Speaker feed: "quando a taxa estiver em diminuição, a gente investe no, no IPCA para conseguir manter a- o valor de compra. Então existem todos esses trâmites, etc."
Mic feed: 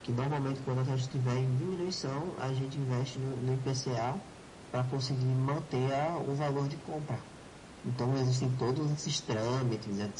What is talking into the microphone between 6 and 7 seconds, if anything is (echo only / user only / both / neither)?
echo only